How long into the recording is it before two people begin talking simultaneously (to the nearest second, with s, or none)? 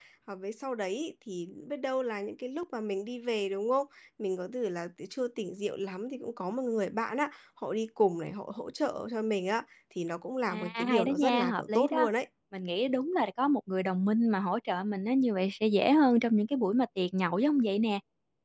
11 s